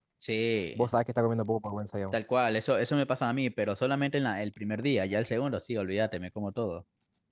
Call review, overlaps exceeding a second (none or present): none